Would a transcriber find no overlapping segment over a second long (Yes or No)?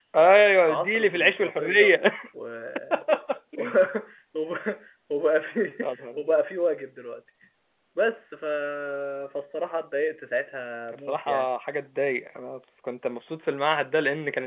No